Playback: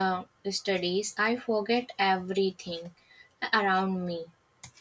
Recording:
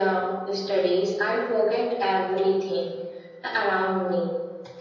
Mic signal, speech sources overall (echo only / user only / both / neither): echo only